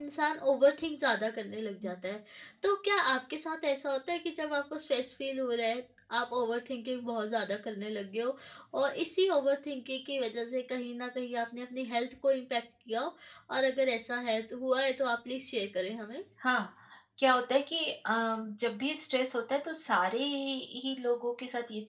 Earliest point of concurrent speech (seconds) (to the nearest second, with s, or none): none